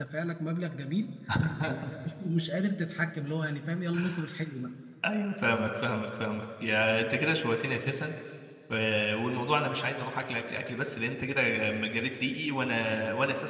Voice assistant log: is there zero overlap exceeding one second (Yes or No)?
Yes